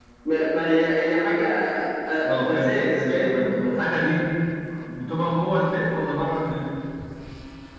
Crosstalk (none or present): present